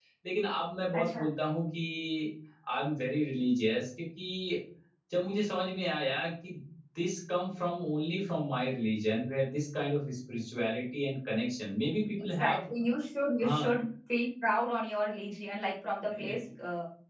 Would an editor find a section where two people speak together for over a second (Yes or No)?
No